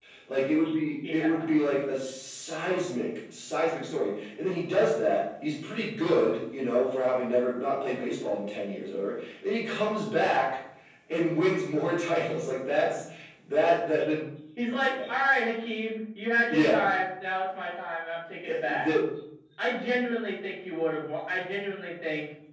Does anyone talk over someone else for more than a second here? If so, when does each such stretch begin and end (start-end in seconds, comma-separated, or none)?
none